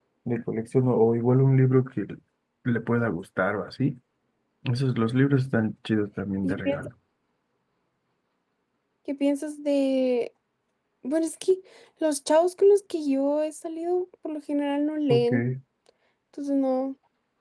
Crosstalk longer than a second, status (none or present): none